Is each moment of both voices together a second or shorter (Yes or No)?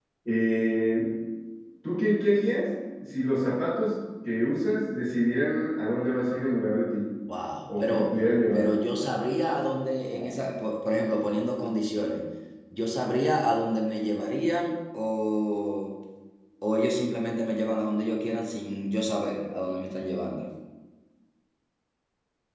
Yes